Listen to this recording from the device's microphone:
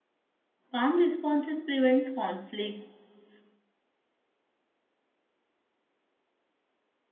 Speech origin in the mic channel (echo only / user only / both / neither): user only